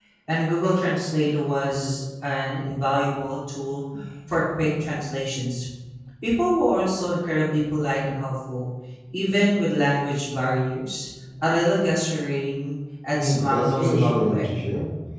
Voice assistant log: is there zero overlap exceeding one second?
No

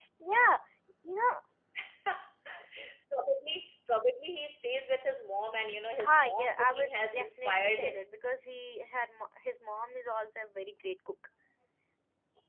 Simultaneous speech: Yes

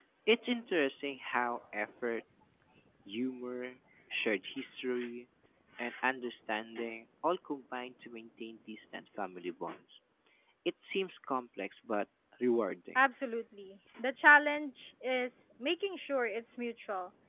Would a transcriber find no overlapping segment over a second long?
Yes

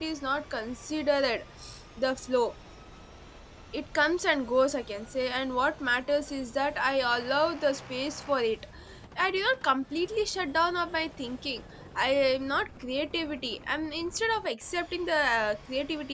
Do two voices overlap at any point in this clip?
No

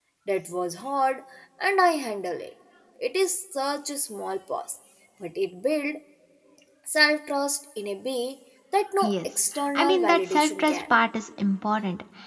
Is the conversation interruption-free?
No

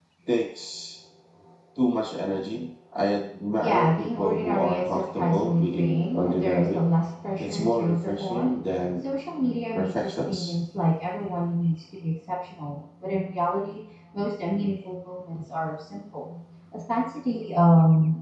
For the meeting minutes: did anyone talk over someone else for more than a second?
Yes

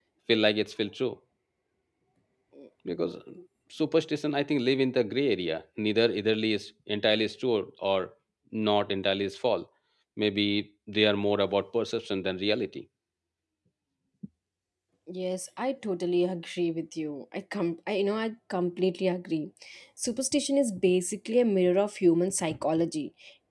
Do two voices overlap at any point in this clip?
No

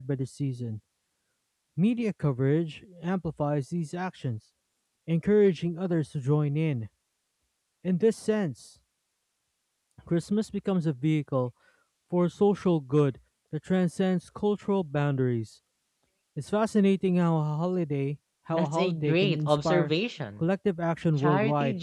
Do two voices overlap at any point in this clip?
Yes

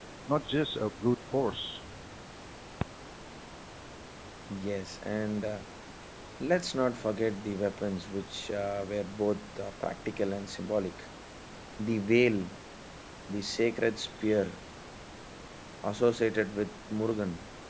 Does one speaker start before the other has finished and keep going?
No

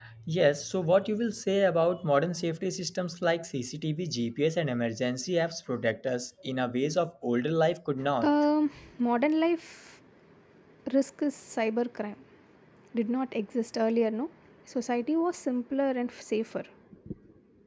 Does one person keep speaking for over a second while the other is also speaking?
No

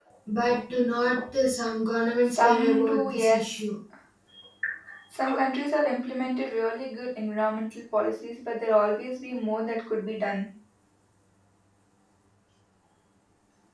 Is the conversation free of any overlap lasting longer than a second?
No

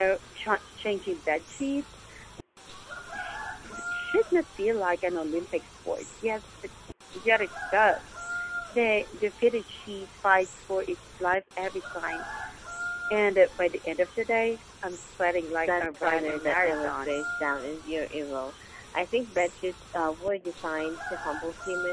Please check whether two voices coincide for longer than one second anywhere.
Yes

